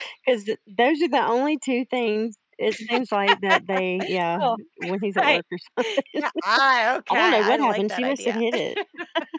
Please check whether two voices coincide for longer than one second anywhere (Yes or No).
Yes